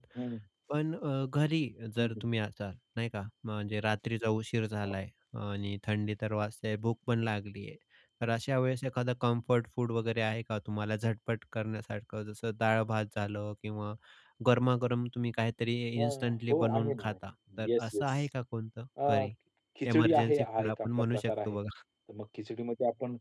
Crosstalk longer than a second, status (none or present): present